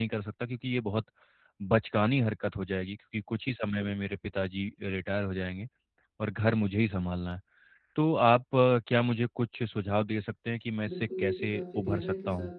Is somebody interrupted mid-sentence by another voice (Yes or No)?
Yes